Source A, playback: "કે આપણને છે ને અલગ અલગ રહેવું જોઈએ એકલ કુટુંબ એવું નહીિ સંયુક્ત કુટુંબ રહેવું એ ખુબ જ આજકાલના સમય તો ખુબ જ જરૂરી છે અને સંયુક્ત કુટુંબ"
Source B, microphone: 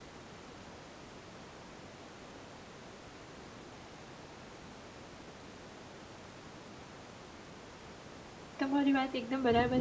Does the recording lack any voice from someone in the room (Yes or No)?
No